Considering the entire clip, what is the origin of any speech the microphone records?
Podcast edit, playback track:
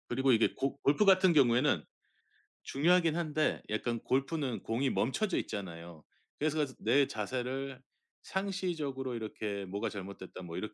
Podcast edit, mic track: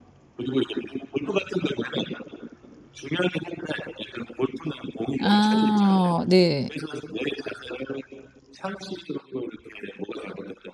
both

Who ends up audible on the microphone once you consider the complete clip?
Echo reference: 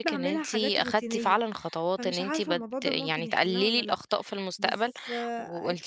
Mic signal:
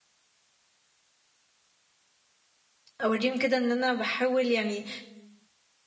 user only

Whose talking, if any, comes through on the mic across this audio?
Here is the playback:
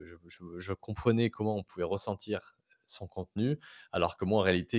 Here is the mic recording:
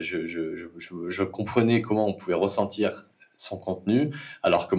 echo only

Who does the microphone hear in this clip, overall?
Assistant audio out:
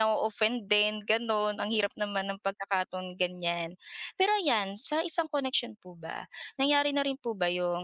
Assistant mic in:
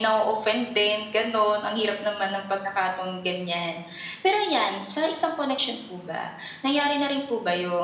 echo only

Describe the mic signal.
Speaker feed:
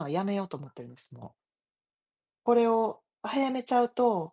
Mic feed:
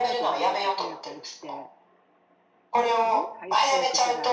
both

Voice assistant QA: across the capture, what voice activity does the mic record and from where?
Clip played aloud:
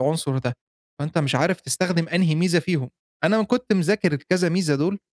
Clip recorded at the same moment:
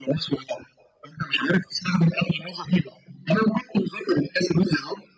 echo only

